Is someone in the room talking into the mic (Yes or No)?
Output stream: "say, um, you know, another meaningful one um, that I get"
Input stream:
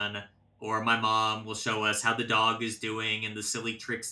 Yes